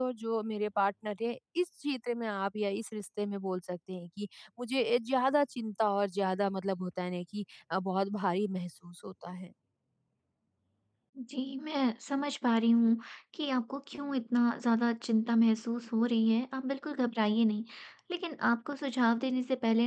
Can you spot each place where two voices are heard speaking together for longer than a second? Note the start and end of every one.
none

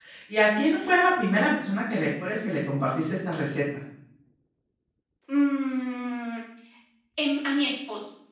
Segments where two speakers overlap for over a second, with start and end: none

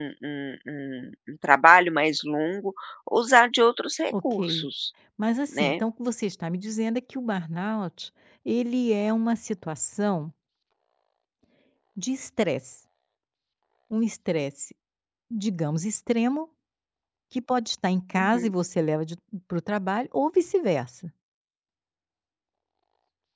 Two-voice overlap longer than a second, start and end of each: none

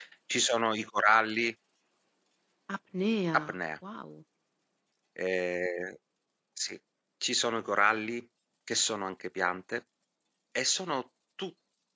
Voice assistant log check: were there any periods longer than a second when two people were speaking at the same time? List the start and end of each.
none

